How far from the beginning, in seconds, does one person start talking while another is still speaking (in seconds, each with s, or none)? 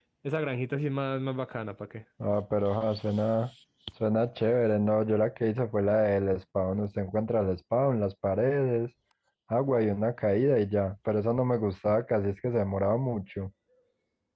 none